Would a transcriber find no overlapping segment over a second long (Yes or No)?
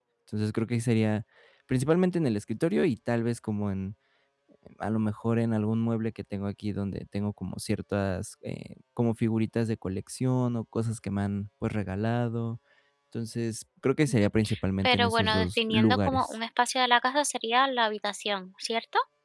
No